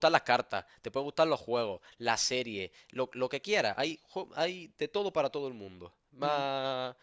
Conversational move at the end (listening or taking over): listening